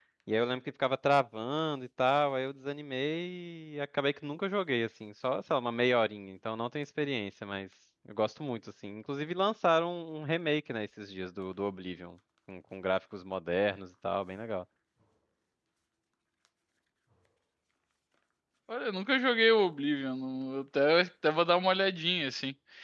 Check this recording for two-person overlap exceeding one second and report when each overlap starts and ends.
none

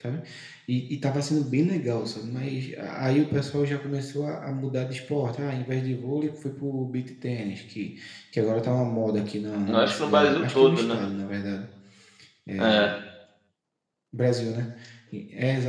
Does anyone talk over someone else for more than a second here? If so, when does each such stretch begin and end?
9.7-11.0

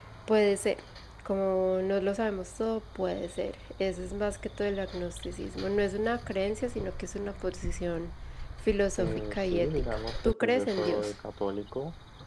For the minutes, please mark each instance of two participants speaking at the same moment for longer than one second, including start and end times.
9.0-11.1

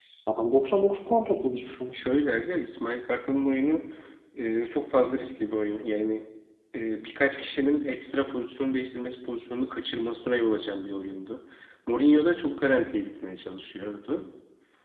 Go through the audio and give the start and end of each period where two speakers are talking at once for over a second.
none

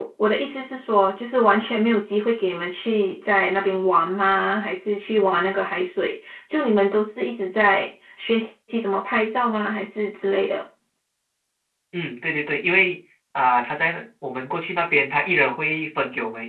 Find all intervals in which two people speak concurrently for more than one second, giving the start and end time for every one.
none

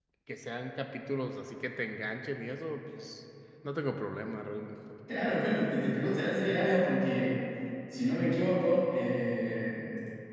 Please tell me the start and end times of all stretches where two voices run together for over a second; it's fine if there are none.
none

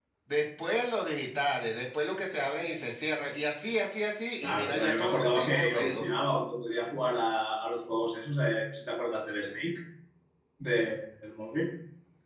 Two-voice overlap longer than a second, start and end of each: 4.4-6.1

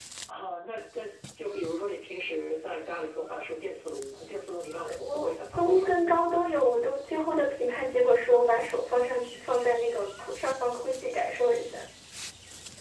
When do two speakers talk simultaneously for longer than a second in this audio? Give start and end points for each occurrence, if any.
4.7-6.0

